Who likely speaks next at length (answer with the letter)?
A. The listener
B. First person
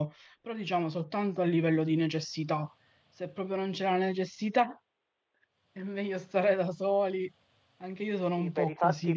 A